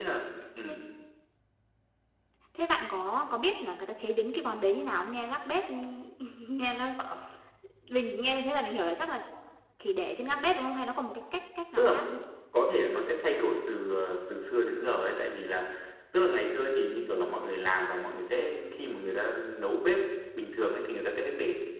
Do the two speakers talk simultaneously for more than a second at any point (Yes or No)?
No